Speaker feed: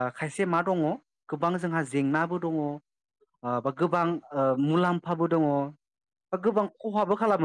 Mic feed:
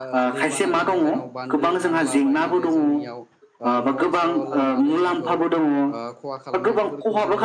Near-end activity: present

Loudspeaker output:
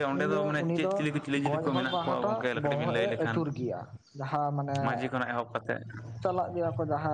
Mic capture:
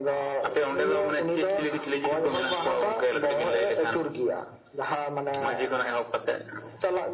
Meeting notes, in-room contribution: none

